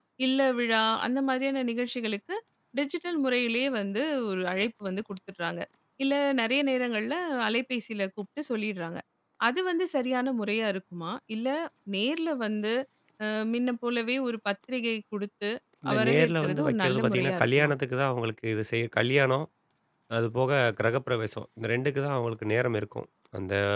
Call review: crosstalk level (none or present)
present